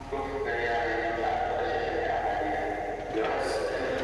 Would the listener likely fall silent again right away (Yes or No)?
Yes